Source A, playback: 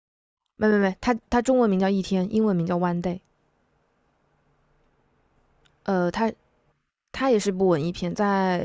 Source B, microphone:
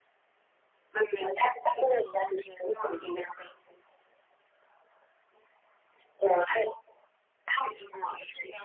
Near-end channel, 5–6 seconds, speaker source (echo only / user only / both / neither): neither